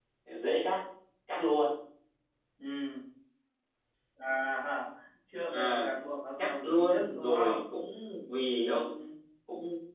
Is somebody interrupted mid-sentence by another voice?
Yes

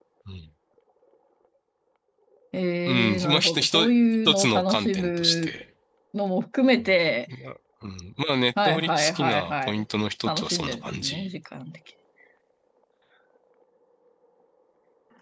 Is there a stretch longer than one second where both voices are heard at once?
Yes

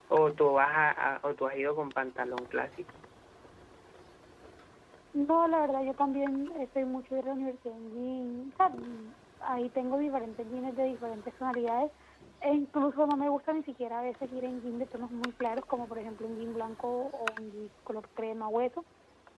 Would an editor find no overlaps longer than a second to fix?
Yes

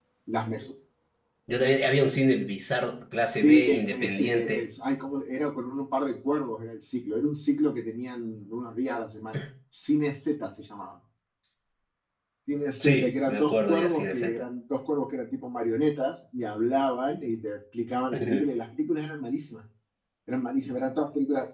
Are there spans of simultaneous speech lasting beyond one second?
Yes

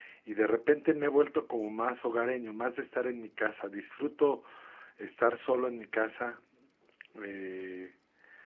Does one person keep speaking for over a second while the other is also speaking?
No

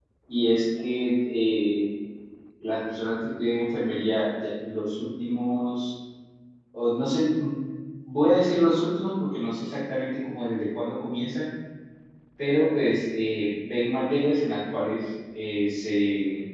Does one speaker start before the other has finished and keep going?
No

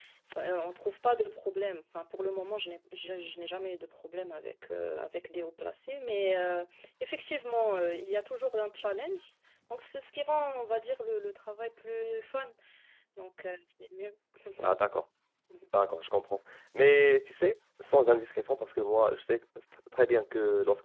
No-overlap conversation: Yes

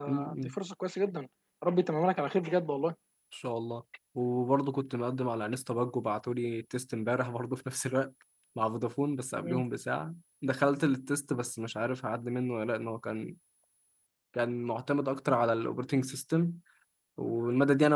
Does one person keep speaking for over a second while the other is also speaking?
No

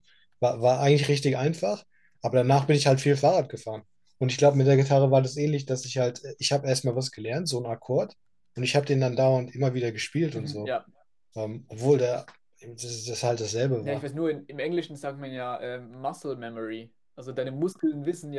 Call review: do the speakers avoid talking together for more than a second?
Yes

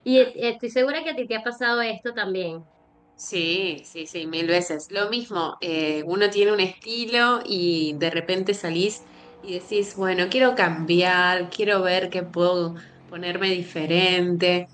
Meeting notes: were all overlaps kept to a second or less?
Yes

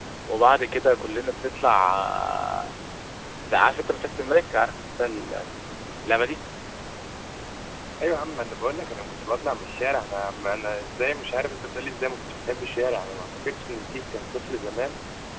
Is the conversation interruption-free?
Yes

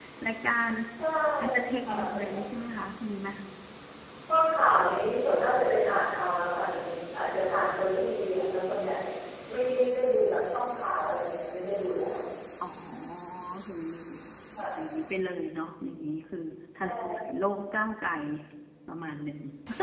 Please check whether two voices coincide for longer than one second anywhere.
No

